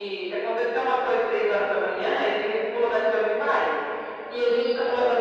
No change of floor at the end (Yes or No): Yes